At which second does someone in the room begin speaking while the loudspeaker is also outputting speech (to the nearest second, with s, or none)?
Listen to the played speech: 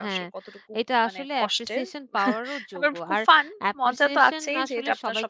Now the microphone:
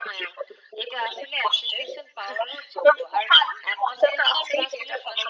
none